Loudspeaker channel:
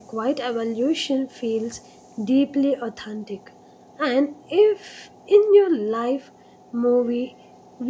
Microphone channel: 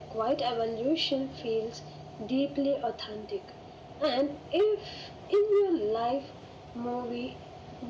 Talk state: echo only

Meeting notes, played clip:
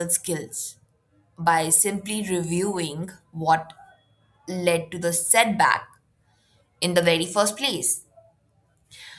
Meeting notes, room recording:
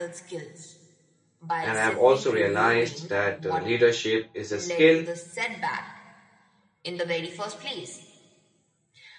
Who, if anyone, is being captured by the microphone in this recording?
both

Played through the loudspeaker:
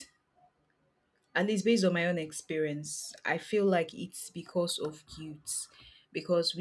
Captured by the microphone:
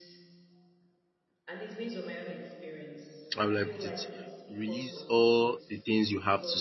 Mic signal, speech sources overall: both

